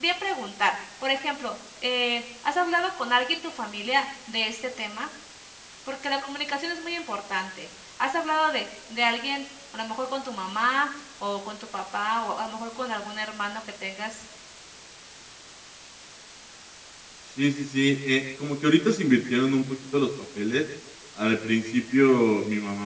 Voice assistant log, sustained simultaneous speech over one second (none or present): none